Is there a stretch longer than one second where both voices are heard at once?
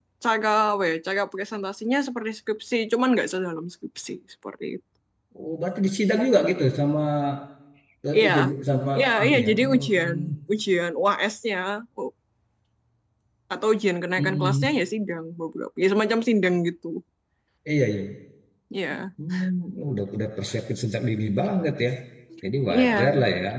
Yes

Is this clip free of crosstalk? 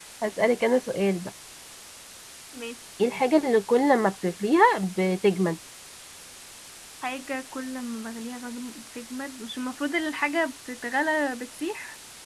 Yes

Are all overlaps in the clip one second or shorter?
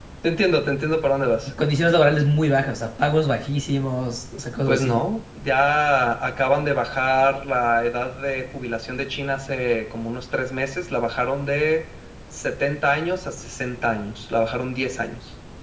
Yes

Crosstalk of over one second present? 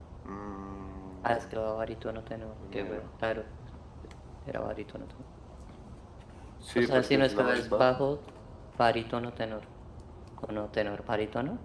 Yes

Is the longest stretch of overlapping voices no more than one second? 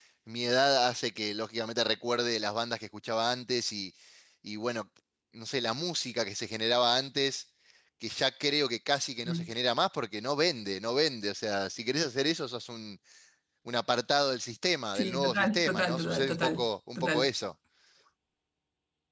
No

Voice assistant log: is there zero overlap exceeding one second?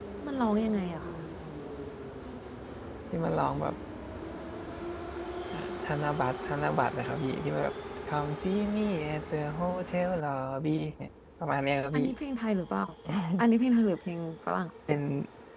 Yes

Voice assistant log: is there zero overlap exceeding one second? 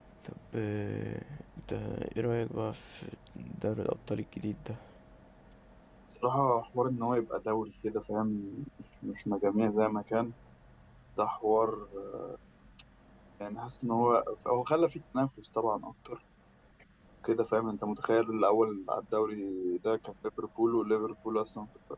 Yes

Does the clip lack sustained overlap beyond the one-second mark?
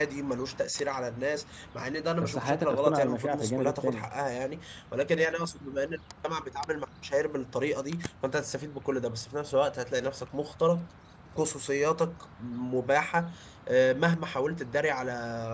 No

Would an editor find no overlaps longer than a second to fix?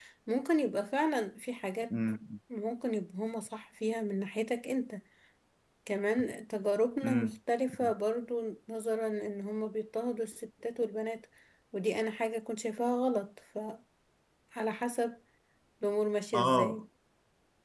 Yes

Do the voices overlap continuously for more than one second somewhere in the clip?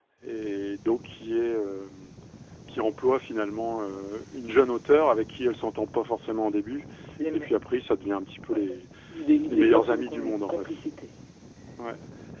Yes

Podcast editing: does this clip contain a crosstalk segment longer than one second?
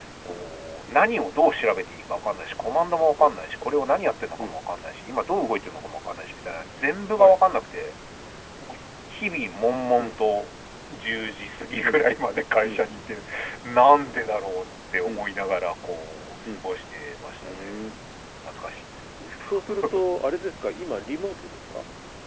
No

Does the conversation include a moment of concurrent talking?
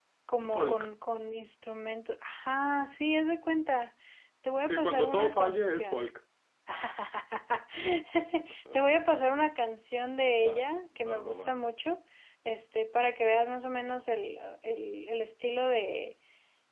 Yes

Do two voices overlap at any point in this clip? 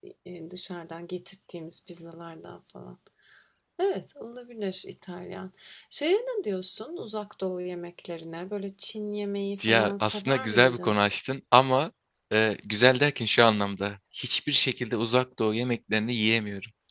Yes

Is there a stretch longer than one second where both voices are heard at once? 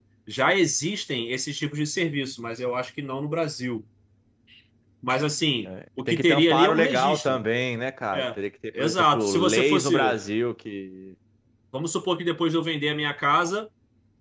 Yes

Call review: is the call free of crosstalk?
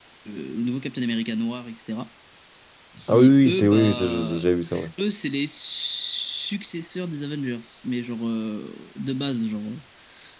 No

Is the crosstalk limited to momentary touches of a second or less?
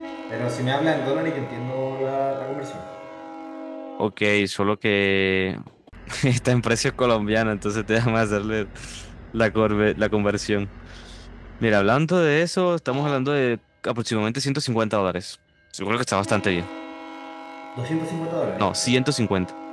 Yes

